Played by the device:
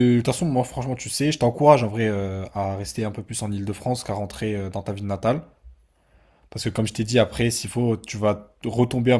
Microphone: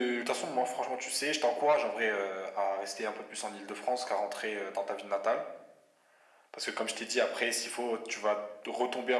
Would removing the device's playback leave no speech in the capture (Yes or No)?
Yes